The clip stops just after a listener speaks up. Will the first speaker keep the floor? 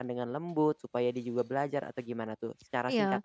No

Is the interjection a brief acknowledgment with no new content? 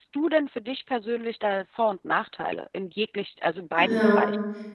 No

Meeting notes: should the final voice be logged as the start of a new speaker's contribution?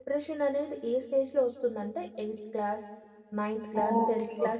Yes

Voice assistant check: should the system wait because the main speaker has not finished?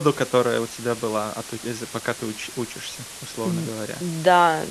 No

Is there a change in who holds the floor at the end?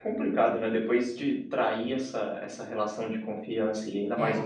No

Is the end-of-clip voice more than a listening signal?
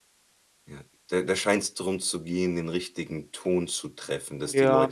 Yes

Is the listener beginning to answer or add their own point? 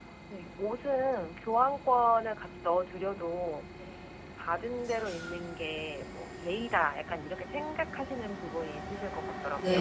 Yes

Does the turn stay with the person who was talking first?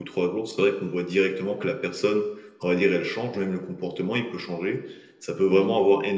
Yes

